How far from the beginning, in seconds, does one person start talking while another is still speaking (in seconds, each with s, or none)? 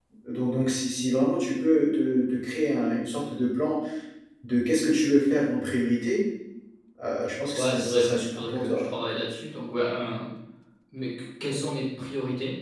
7.5 s